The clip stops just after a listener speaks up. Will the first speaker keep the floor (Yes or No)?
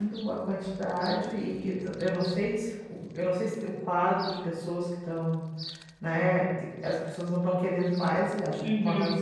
No